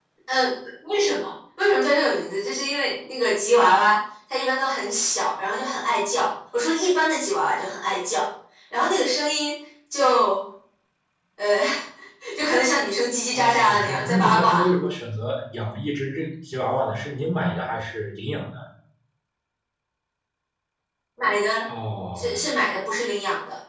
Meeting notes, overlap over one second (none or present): present